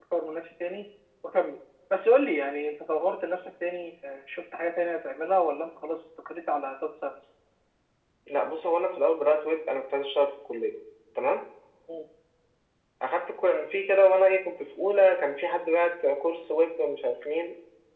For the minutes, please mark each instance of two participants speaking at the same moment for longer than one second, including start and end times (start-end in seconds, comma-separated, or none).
none